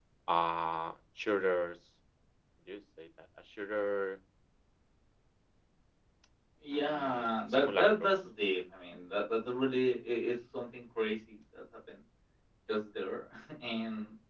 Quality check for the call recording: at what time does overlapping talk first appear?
7 s

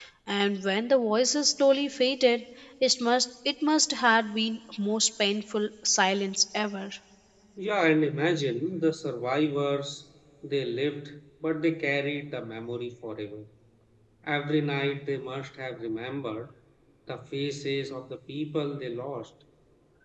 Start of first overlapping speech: none

